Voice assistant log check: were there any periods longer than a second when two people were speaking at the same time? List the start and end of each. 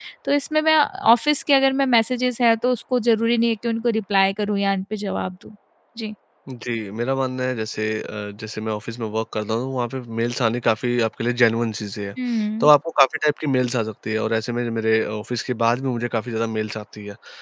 none

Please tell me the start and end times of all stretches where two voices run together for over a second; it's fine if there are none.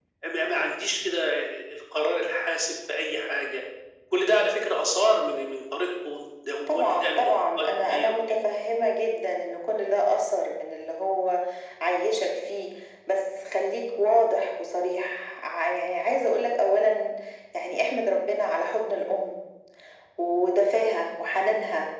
6.7-8.4

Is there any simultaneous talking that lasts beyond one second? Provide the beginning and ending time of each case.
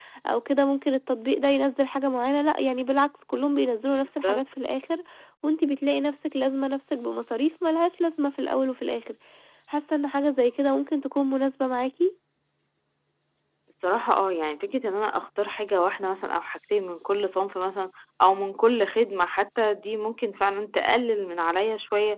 none

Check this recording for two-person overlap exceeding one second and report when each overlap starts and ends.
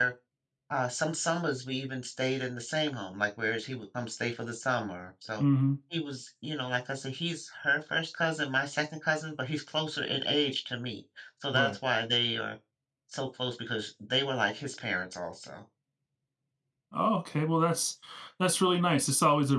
none

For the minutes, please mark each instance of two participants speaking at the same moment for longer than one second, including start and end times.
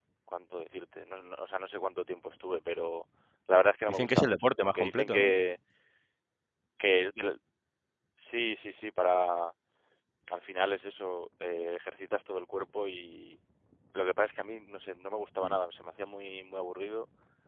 3.9-5.3

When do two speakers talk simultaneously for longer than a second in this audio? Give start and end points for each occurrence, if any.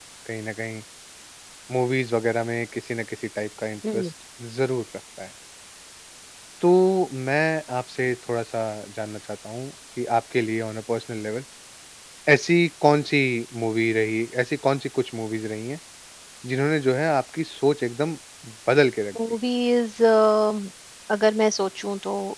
none

